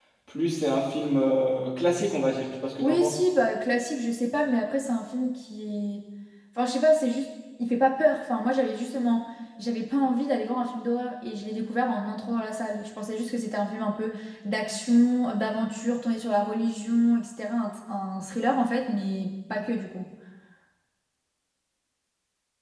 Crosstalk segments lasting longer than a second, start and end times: none

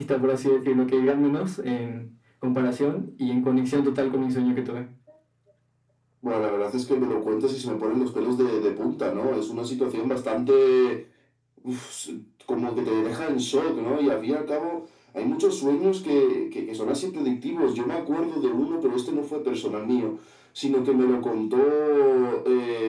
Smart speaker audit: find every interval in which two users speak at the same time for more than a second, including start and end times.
none

